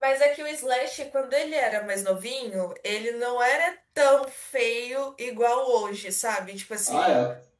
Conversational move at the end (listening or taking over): listening